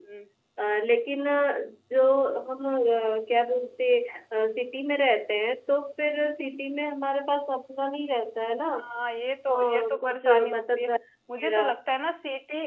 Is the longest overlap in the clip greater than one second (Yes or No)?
Yes